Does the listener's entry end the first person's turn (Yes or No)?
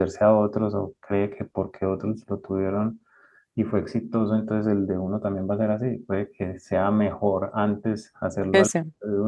No